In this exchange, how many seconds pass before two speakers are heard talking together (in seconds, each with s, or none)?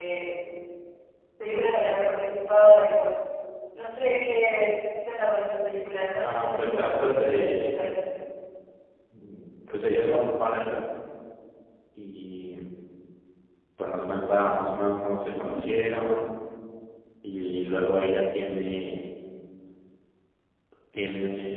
6.2 s